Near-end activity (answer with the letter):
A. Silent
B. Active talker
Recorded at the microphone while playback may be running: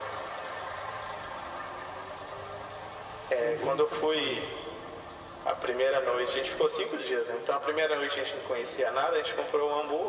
B